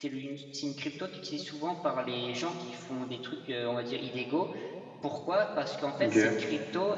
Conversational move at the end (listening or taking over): listening